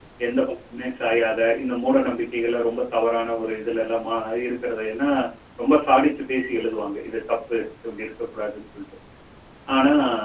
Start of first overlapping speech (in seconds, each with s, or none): none